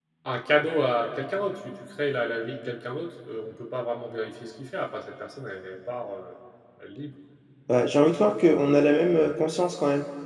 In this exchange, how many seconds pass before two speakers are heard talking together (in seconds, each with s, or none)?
none